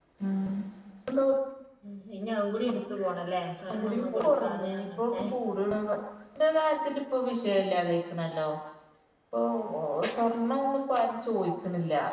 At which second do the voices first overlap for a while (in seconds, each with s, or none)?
3.7 s